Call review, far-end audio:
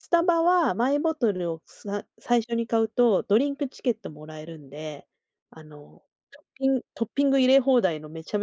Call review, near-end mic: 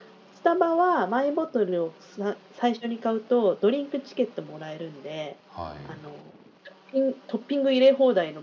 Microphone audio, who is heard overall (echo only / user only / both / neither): both